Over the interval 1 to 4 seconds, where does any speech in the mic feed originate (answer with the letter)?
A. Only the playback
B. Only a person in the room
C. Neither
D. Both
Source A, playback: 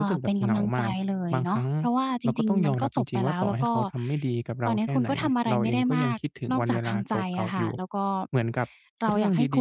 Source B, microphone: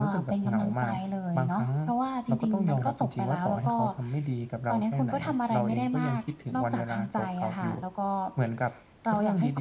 A